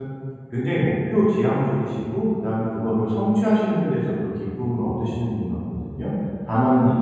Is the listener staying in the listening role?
Yes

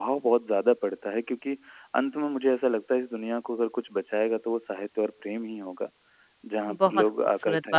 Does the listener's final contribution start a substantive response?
Yes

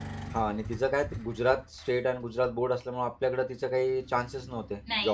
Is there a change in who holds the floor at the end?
Yes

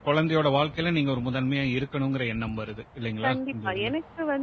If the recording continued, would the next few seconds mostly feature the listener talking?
Yes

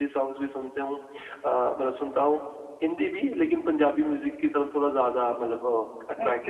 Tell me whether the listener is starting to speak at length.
Yes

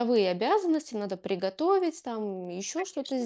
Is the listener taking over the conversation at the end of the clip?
No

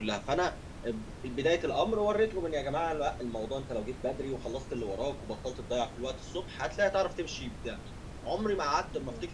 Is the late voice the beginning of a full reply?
No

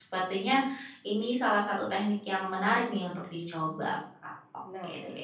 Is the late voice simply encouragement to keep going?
No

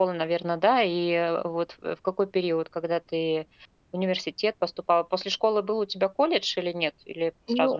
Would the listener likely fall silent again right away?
No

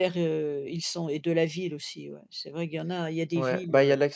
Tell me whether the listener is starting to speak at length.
Yes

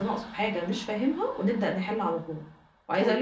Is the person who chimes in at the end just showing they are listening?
Yes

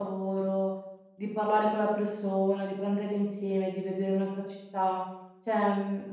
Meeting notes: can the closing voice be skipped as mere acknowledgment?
Yes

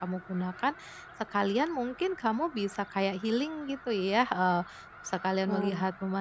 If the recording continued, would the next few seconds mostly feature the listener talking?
No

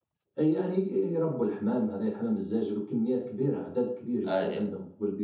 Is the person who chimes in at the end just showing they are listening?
Yes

